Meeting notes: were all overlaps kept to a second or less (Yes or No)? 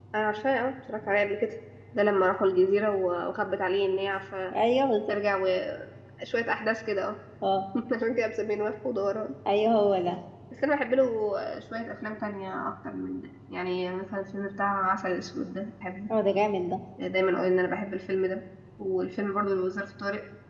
Yes